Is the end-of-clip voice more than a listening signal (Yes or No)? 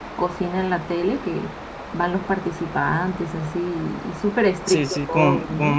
Yes